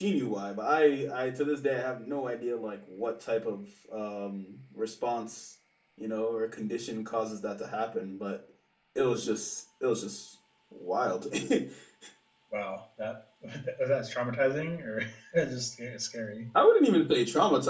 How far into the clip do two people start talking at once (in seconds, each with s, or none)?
none